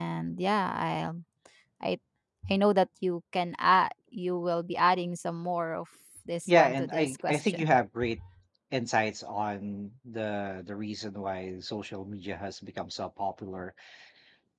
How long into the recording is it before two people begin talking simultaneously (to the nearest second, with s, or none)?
6 s